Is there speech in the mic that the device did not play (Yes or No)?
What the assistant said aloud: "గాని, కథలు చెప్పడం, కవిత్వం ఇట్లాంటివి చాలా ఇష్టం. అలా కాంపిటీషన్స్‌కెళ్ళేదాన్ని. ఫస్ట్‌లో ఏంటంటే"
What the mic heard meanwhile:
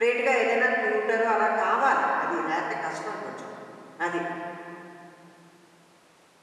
Yes